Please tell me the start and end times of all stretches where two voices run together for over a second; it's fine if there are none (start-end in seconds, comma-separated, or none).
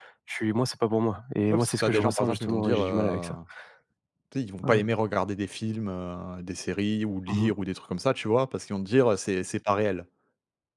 1.5-3.3